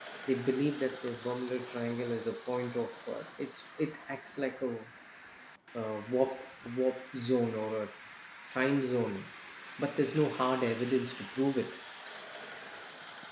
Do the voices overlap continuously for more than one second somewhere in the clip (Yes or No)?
No